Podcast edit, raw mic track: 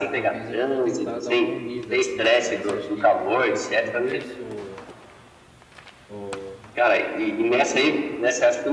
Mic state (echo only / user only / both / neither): both